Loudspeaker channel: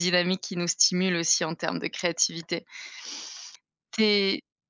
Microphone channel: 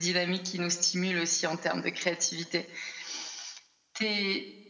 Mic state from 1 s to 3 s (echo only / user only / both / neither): echo only